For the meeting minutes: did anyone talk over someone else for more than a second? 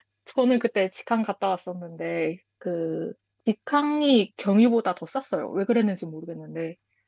No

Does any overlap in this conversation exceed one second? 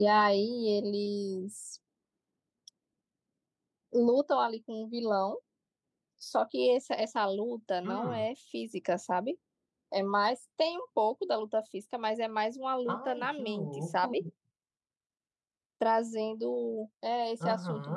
Yes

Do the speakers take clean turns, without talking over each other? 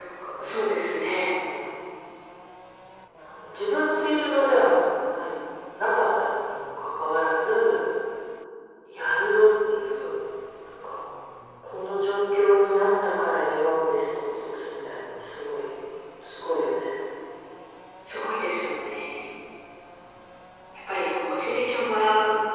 Yes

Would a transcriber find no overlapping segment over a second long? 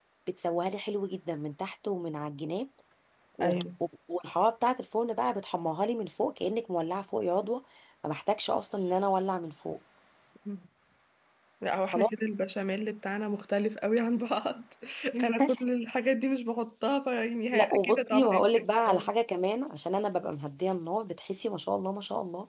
No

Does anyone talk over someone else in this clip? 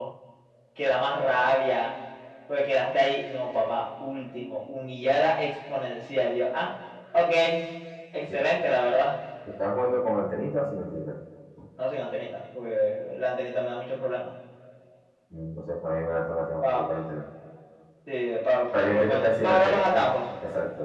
Yes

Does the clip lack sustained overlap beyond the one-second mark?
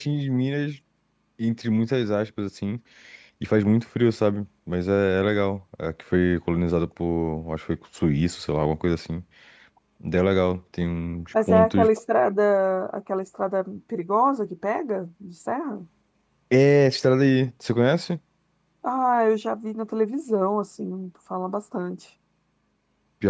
Yes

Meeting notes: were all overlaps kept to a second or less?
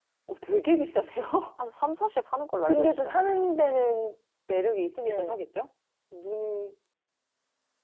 Yes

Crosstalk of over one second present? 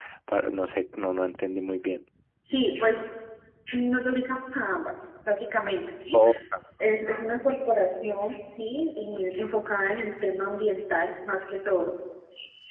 No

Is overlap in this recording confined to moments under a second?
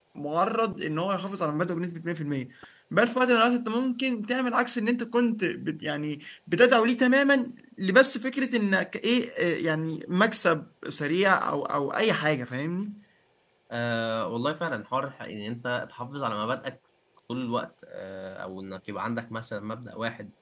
Yes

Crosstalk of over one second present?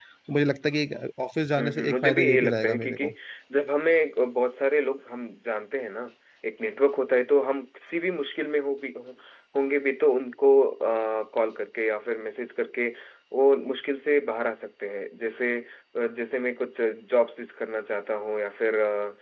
Yes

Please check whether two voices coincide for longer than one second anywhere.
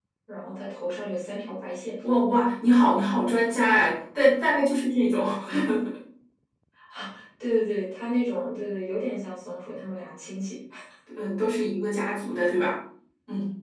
No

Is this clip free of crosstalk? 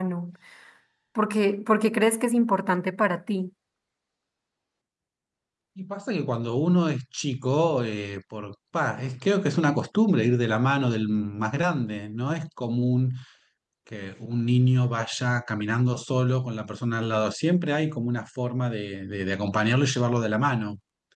Yes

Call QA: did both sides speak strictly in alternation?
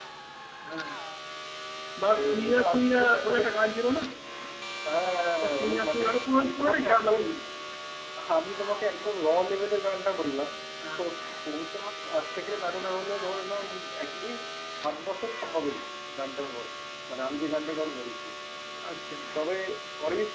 No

